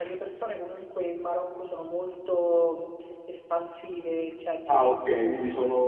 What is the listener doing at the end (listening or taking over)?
taking over